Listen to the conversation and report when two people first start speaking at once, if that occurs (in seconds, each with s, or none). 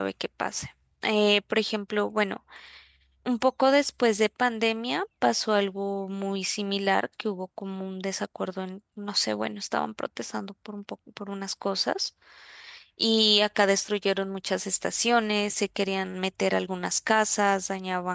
none